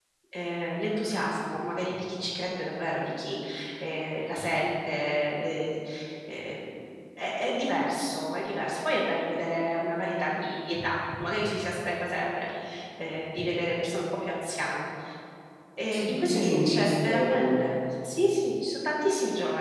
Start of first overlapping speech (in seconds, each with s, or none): 15.9 s